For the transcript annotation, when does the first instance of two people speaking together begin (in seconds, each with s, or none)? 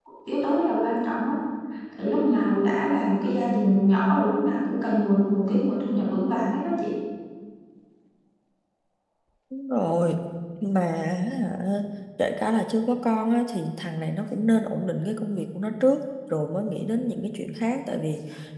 none